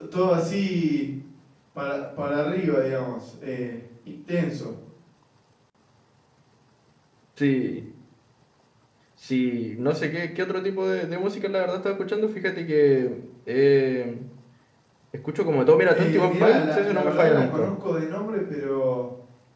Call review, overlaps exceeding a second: present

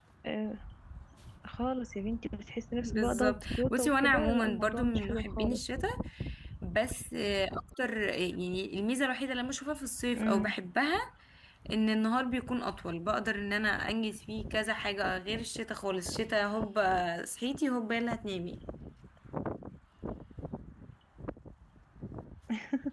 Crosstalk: present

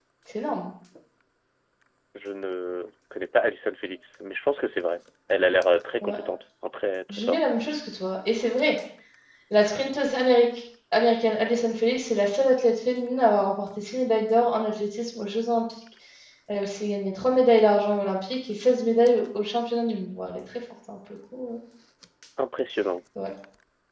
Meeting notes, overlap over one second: none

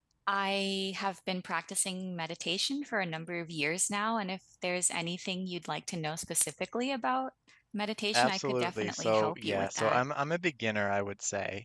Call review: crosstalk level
present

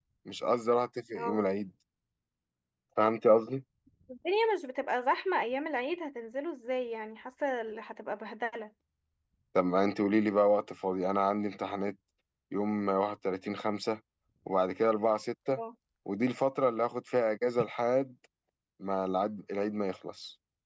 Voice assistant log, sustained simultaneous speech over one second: none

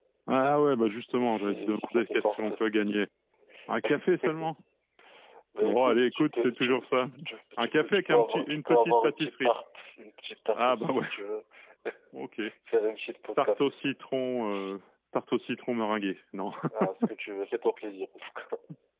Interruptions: present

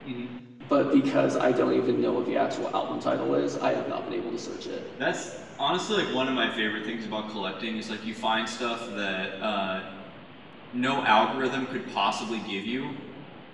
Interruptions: none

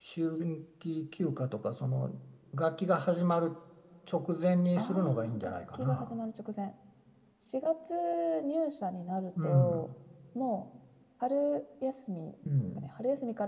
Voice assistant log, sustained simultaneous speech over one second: present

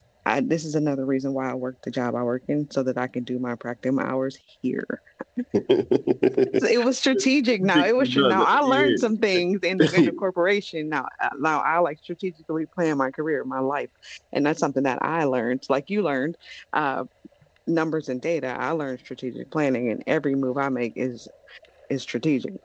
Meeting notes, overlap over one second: present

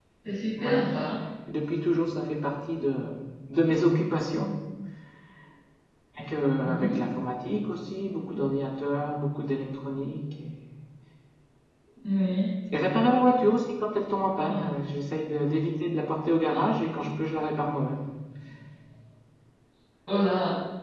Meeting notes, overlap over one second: none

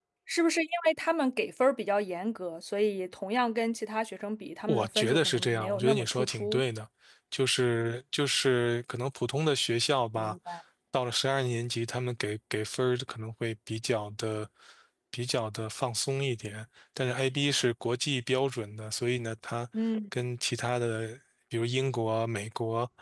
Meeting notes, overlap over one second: present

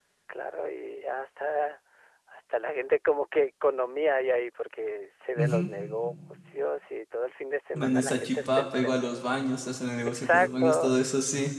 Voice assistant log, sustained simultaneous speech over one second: present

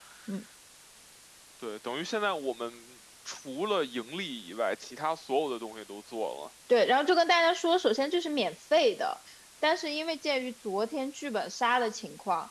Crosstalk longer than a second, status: none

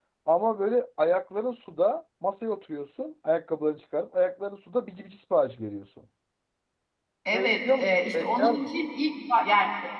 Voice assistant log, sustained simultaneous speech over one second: present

